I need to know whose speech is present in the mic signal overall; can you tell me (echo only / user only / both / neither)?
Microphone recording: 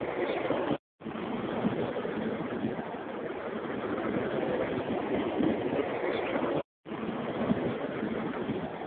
neither